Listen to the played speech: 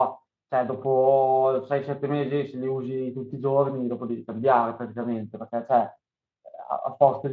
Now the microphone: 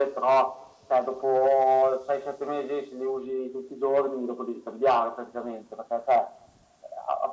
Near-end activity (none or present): none